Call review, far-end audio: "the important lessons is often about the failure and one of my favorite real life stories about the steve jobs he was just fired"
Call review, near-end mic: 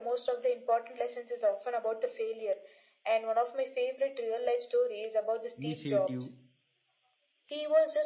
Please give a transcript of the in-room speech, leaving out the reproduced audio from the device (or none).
initiative,